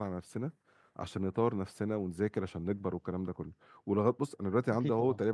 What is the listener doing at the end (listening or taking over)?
listening